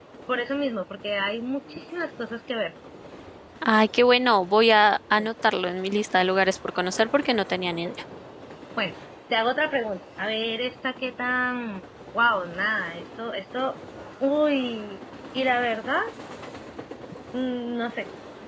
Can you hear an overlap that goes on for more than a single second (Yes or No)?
No